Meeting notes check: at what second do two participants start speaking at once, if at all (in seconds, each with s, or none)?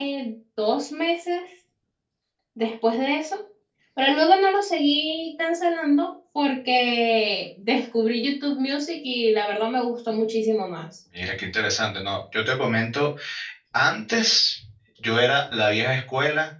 none